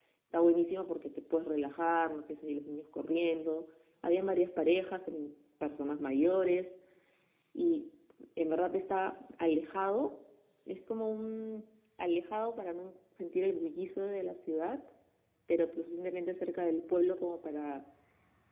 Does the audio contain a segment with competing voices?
No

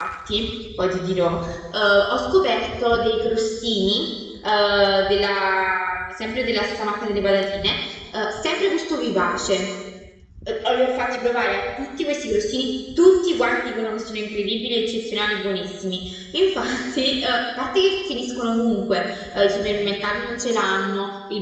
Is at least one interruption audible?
No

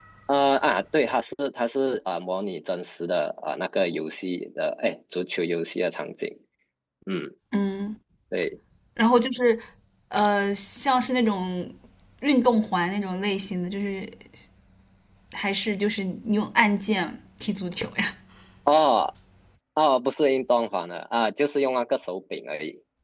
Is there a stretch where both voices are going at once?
No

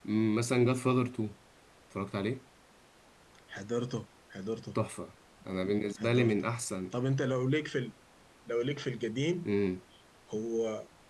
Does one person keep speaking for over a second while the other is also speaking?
No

